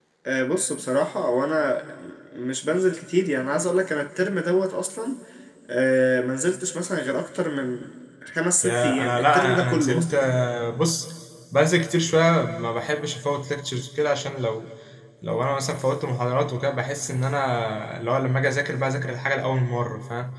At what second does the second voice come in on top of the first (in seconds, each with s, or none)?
8.6 s